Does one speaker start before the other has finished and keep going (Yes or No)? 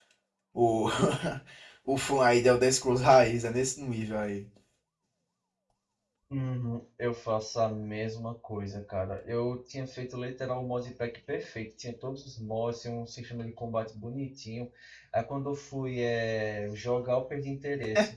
No